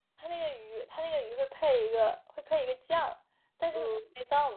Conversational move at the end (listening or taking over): listening